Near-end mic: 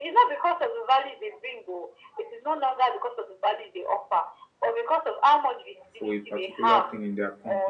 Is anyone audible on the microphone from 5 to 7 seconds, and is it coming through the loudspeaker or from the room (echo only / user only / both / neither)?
both